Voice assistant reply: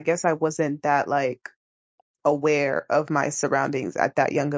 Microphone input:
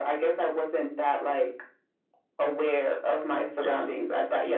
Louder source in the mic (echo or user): echo